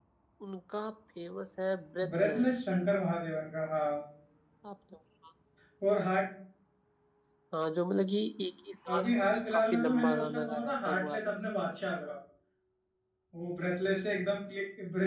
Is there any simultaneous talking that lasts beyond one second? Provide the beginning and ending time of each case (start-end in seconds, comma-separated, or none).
8.9-11.3